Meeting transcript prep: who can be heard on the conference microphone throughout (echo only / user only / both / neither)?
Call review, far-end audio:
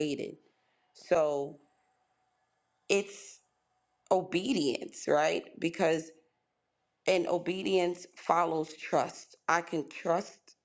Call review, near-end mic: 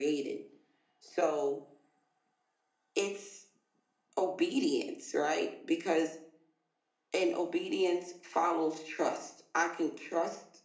echo only